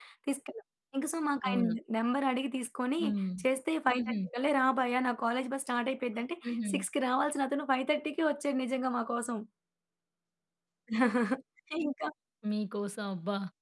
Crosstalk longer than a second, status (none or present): none